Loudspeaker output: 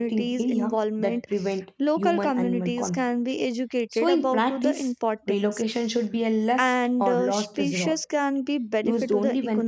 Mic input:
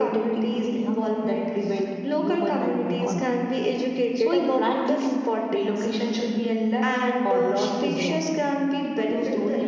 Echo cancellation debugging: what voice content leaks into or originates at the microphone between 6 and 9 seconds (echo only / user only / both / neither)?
echo only